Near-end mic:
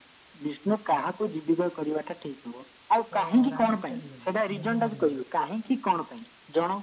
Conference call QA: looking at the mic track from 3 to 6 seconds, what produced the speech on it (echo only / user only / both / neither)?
both